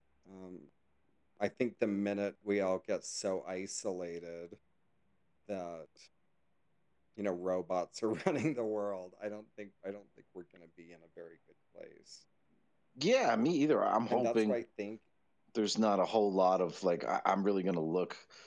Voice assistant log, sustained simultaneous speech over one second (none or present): none